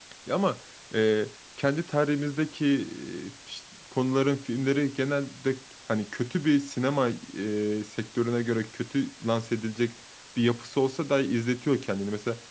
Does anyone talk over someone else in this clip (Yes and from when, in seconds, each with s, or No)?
No